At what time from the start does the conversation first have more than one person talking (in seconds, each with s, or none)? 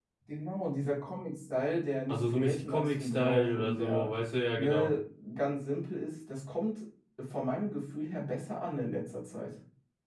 2.1 s